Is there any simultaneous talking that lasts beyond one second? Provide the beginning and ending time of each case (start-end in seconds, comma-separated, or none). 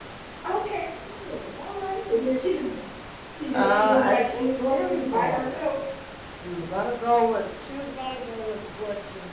3.5-5.8